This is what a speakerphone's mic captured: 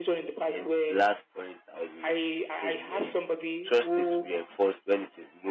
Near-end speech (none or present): present